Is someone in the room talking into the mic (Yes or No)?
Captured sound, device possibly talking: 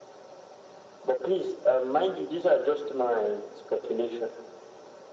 No